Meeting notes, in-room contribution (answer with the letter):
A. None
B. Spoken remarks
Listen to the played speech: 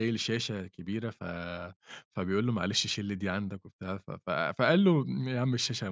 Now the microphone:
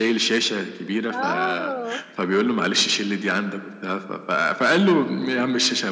B